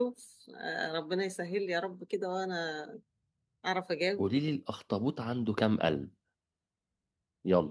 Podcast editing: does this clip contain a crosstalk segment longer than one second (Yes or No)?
No